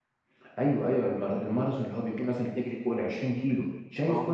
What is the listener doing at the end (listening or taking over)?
listening